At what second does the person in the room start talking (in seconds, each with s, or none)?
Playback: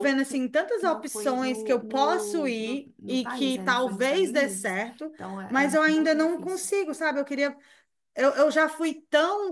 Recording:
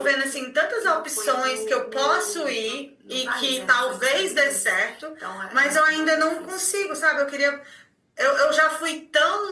none